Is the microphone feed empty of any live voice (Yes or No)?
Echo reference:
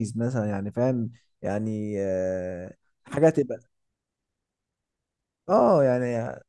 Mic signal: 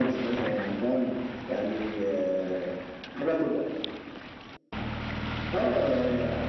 Yes